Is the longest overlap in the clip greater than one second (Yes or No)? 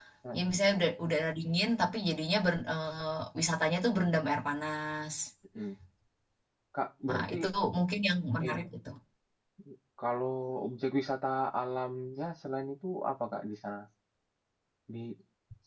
No